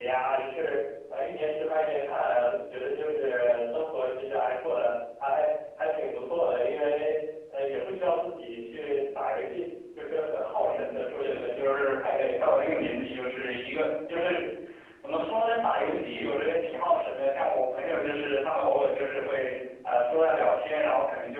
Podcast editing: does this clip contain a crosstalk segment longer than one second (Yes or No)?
Yes